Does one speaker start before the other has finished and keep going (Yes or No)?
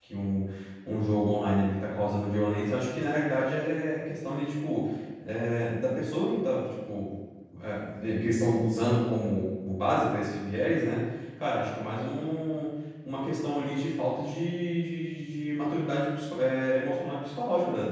No